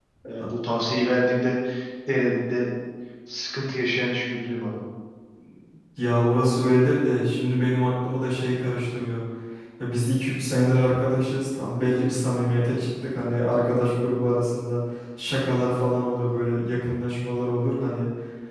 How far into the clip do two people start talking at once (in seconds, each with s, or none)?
none